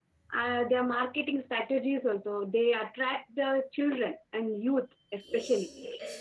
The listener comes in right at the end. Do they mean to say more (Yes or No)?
Yes